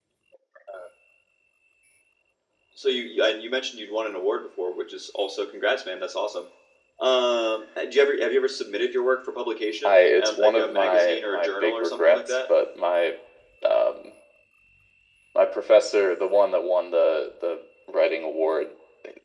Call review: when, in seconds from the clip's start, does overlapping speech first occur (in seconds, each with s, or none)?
9.8 s